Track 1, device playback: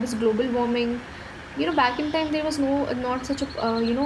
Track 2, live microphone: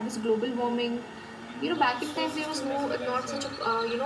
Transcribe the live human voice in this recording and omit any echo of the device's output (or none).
in our solar system as well as uh,